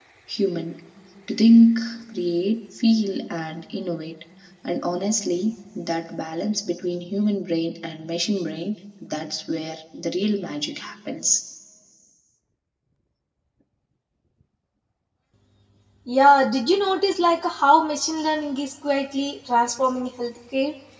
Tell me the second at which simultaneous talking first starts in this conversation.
none

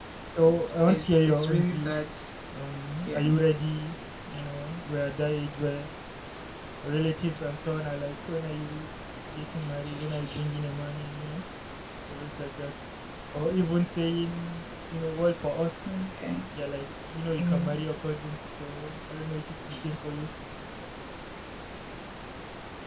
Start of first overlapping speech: 0.8 s

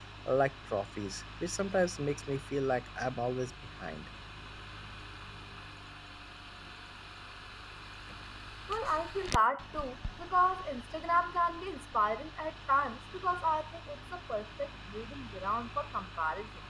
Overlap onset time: none

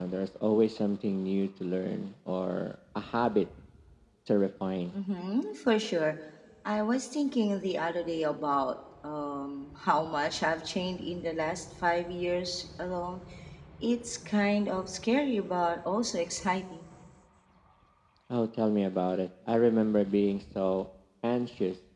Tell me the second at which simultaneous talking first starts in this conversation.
none

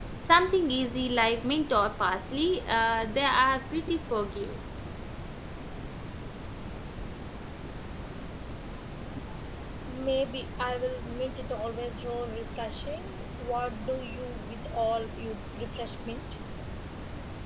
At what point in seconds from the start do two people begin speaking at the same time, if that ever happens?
none

